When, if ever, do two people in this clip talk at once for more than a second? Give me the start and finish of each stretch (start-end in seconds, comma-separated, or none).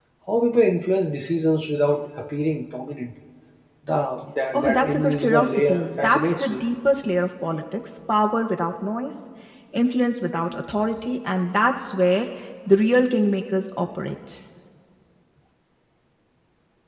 4.5-6.6